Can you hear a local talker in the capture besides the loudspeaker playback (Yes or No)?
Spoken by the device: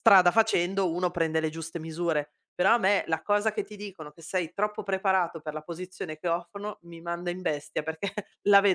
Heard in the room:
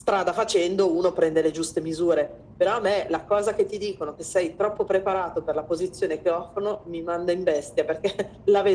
No